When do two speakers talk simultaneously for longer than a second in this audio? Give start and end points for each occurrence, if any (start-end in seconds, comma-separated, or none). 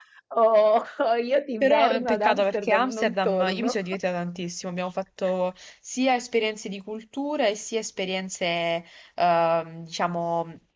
1.6-3.8